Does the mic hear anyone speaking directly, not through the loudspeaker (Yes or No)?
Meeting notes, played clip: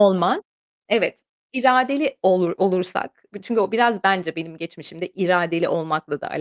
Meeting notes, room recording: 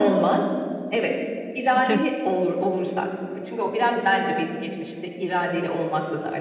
Yes